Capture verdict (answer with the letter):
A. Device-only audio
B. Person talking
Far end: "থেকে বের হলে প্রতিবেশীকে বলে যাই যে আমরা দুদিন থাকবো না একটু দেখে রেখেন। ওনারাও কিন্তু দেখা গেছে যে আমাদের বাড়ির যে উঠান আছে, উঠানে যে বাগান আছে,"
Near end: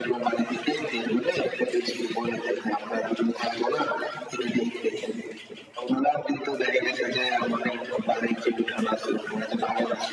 A